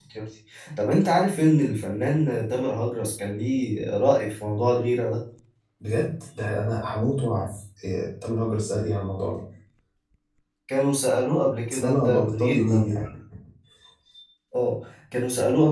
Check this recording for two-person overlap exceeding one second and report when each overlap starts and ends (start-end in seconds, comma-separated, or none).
11.7-13.0